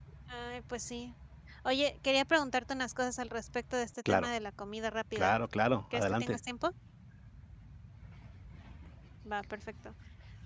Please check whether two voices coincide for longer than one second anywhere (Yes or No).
No